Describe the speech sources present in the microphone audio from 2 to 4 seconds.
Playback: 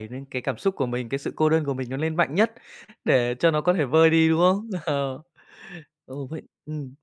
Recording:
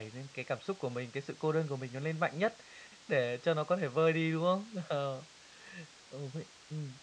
echo only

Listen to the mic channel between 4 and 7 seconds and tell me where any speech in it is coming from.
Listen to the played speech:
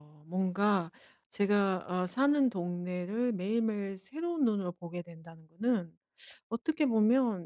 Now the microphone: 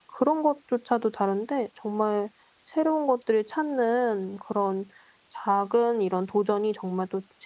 user only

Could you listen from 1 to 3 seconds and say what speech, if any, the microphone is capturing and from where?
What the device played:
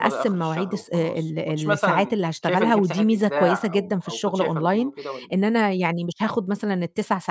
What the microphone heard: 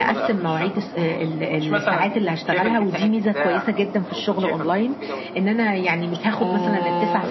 echo only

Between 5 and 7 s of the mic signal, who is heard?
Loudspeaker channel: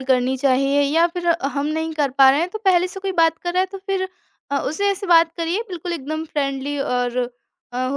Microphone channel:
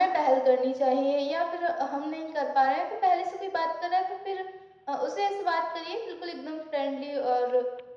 echo only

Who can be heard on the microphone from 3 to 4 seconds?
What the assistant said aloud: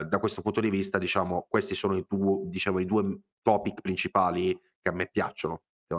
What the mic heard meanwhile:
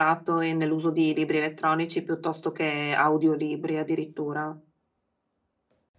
user only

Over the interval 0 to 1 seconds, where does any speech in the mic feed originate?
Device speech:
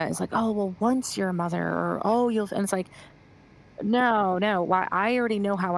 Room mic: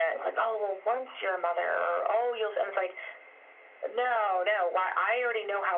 echo only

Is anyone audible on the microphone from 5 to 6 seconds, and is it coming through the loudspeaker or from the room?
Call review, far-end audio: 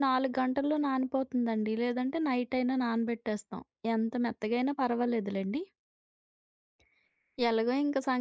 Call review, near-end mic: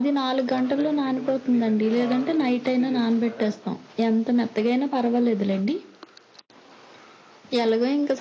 echo only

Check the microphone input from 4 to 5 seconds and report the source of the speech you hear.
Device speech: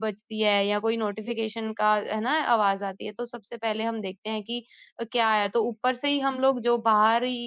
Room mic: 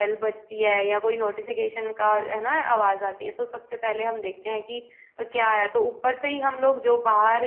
echo only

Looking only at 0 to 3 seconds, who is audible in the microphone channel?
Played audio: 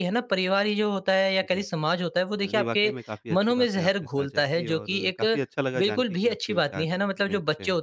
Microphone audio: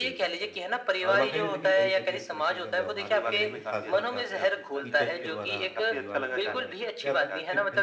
both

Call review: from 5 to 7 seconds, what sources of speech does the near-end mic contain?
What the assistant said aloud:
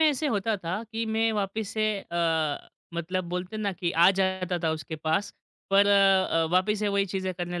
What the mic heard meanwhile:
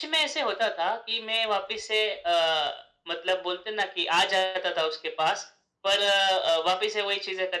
echo only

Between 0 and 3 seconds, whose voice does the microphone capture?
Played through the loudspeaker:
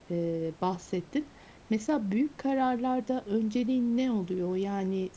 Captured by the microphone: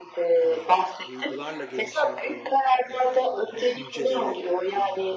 both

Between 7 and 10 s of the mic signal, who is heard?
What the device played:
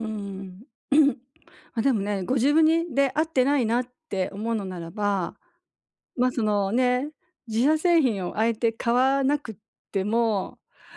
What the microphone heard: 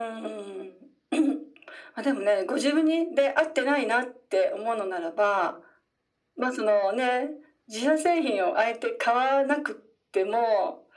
echo only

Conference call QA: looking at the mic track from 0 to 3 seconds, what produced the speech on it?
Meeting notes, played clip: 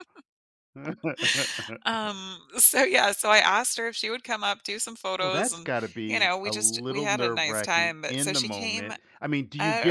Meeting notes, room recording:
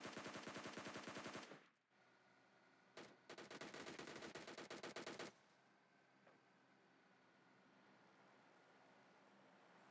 neither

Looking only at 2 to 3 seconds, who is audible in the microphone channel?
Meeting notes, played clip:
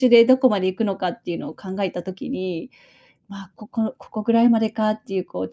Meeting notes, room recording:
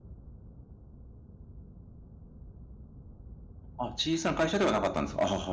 neither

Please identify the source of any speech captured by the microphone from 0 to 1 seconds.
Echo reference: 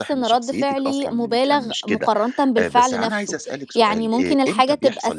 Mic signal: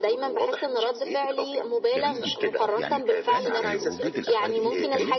echo only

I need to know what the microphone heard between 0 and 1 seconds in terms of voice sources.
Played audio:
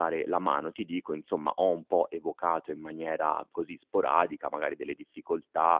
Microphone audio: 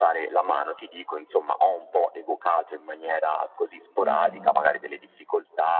echo only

